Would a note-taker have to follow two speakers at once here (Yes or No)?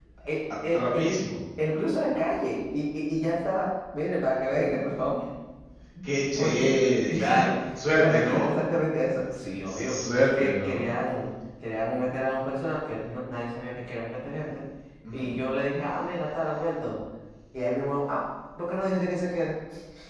Yes